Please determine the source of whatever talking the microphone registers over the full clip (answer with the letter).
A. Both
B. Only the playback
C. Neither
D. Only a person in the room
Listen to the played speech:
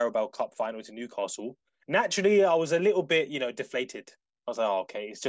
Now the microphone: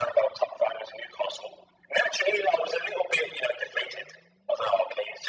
B